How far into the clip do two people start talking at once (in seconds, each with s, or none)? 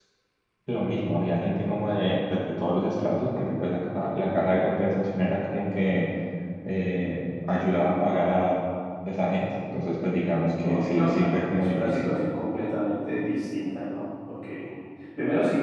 10.7 s